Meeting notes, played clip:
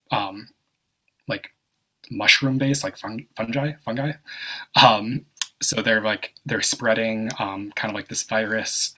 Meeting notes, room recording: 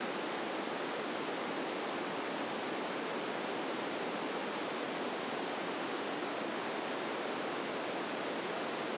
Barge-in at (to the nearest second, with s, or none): none